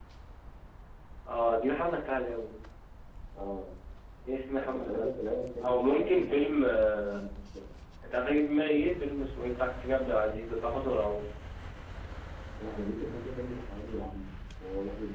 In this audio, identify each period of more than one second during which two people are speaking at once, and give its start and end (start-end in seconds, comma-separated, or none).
5.6-7.0